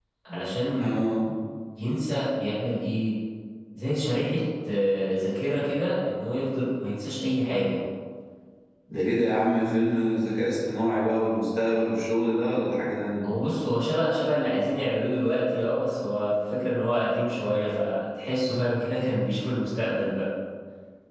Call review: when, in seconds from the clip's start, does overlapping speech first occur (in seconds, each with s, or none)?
none